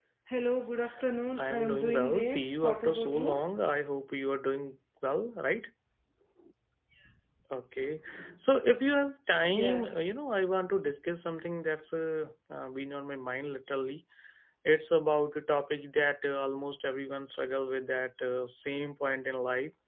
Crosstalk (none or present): present